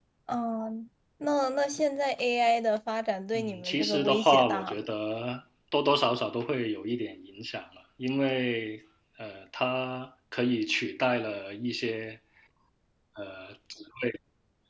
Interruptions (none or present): present